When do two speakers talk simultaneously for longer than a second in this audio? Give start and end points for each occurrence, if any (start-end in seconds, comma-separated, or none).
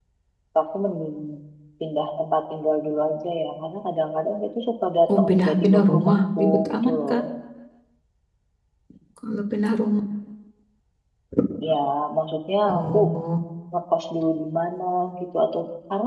5.2-7.2